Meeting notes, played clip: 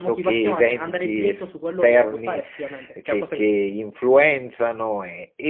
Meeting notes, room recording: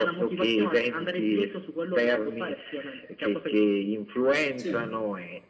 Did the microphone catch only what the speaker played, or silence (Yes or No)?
No